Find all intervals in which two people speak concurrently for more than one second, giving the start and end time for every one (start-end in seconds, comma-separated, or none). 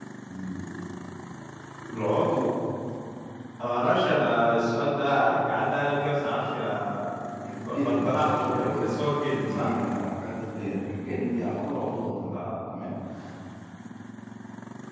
7.6-9.7